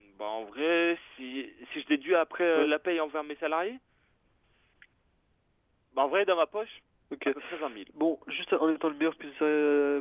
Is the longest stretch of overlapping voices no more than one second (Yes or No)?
Yes